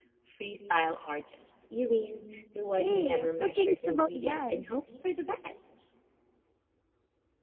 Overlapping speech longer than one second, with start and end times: 2.8-4.8

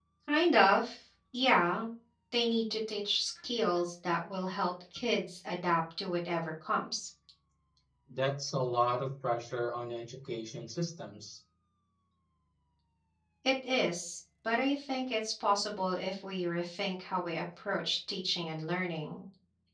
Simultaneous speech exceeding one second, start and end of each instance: none

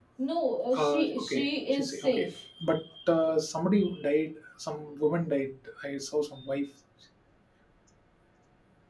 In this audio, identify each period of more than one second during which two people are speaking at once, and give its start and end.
0.7-2.3

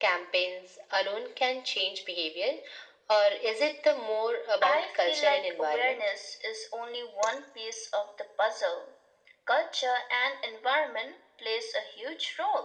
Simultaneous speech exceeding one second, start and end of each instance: 4.6-6.0

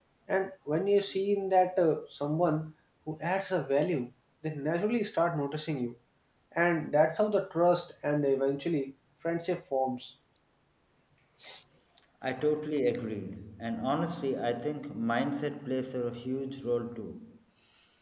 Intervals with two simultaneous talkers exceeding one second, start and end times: none

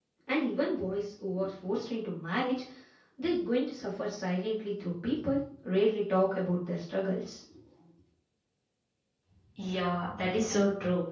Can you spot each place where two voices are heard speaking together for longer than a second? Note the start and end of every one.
none

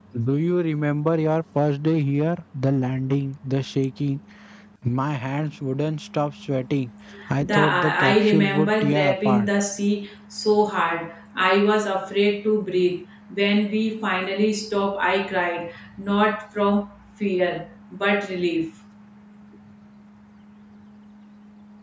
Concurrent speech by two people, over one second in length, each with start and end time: 7.4-9.5

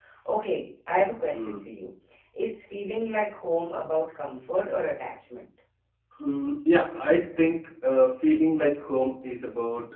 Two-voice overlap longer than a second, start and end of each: none

